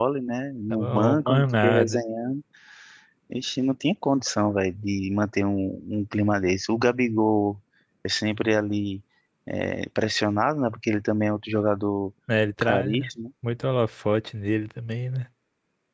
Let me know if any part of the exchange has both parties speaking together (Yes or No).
Yes